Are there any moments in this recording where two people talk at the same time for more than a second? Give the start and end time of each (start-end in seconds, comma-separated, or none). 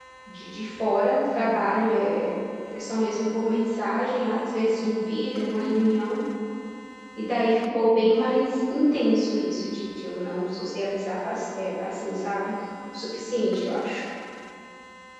none